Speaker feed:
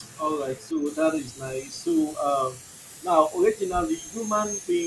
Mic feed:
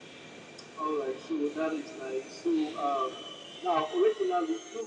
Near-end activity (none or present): none